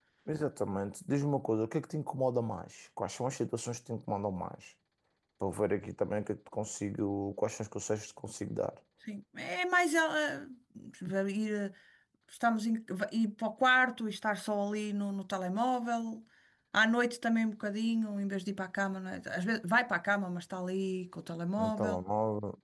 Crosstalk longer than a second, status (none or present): none